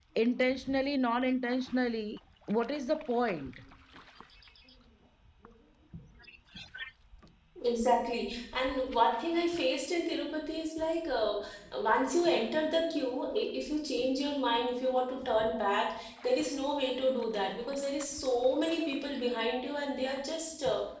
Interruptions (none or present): none